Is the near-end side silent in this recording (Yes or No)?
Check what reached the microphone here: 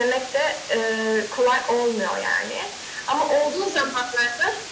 Yes